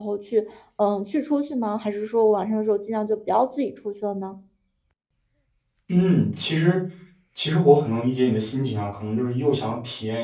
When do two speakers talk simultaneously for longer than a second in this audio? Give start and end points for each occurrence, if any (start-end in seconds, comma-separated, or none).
none